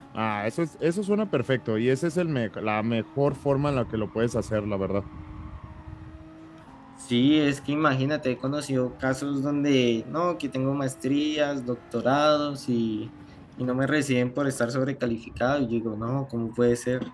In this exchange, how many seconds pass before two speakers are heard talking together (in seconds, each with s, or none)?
none